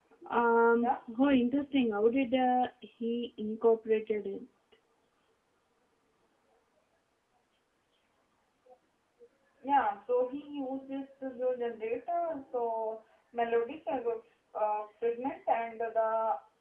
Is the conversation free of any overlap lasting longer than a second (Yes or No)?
Yes